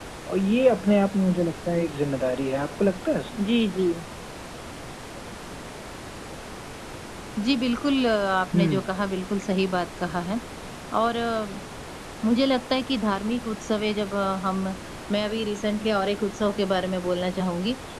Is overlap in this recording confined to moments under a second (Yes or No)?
Yes